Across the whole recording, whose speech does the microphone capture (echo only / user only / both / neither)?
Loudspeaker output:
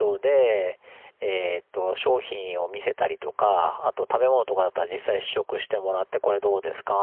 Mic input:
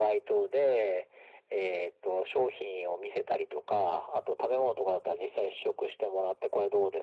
echo only